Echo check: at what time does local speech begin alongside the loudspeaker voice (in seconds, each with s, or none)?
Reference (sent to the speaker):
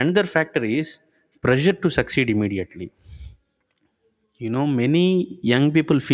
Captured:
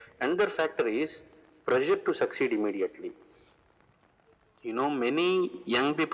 none